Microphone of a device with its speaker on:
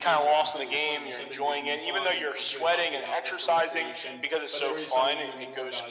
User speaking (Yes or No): Yes